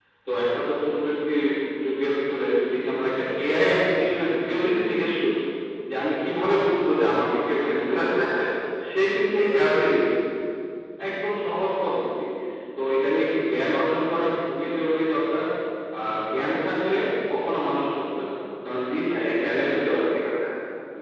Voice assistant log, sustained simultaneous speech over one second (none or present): present